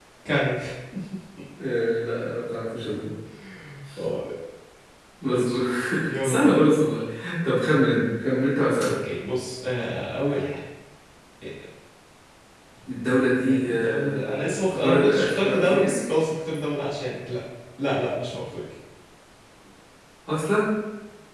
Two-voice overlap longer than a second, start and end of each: 13.5-15.9

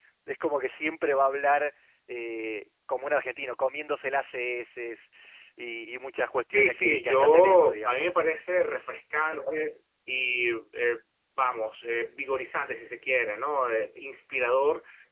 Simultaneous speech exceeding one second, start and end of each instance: 6.5-8.2

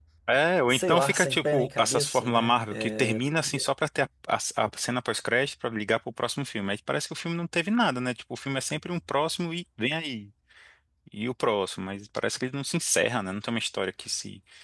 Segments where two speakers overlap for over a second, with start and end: 0.7-3.2

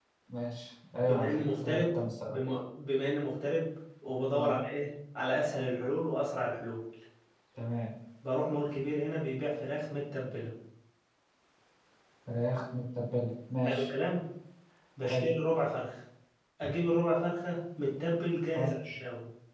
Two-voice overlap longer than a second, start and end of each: 1.1-2.4

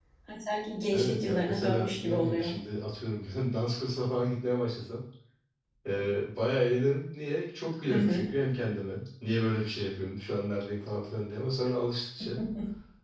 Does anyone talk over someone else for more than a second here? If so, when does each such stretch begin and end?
0.9-2.5

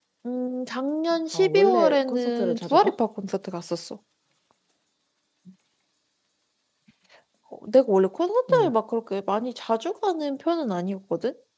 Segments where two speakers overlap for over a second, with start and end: 1.3-2.9

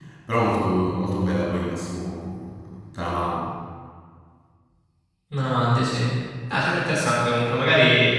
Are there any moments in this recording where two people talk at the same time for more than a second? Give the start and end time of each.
none

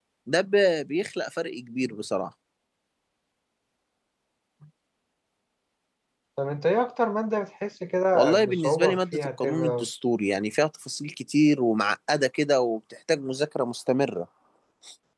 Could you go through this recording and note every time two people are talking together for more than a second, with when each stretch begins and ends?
8.1-9.9

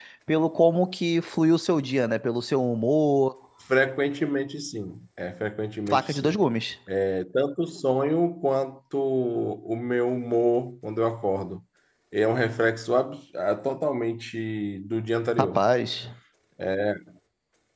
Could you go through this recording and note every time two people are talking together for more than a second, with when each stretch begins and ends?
none

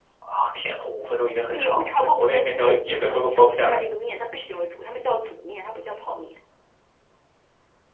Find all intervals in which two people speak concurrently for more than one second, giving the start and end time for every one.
1.5-3.8

